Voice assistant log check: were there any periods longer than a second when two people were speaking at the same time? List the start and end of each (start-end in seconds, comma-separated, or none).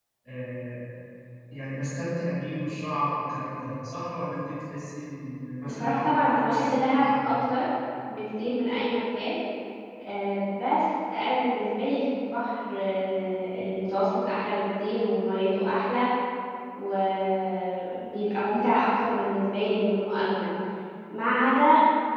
5.6-7.4